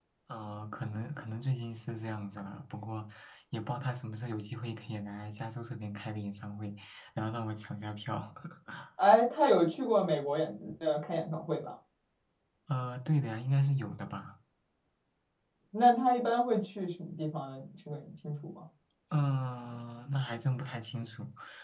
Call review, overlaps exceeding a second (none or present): none